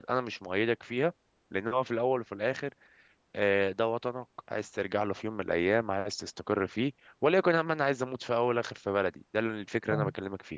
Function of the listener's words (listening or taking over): taking over